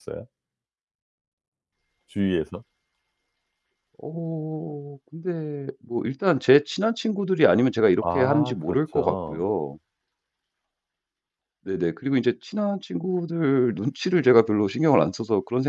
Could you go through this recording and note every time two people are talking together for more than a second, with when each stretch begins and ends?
8.1-9.4

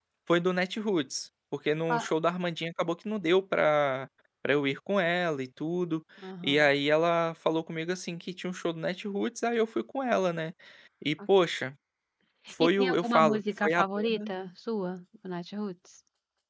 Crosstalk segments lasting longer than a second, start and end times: 12.6-14.2

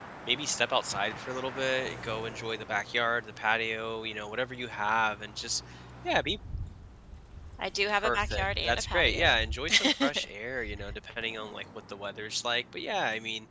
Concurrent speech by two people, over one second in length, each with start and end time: 7.9-9.4

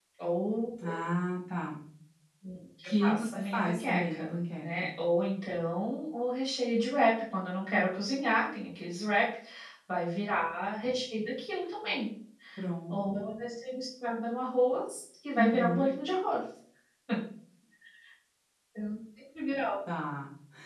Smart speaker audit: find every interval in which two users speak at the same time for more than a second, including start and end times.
2.8-4.9

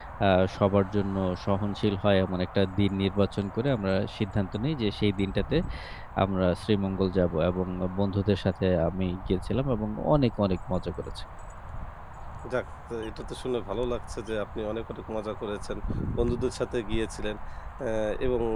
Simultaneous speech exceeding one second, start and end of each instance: none

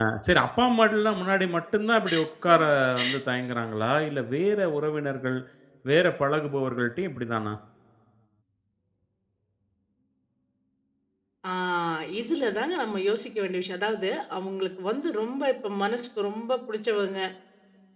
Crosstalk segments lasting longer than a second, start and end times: none

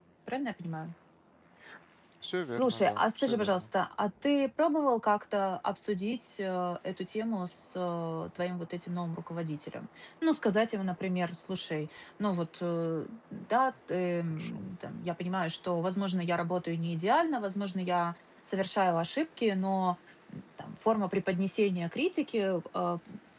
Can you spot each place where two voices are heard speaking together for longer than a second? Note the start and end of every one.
2.5-3.7

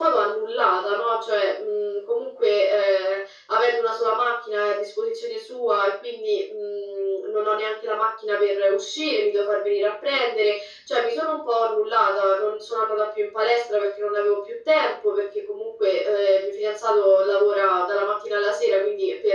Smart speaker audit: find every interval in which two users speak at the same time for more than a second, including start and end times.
none

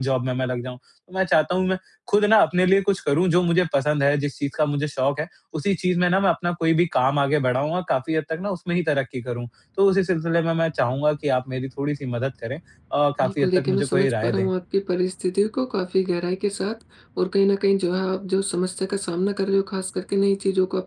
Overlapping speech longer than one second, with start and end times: 13.2-14.5

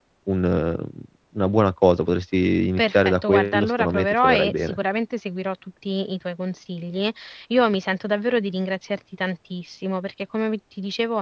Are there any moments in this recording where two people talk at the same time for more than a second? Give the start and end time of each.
2.8-4.8

